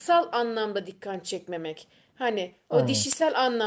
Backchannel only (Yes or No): Yes